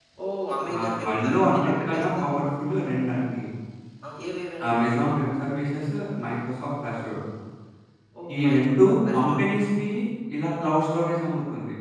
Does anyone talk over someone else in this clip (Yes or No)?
Yes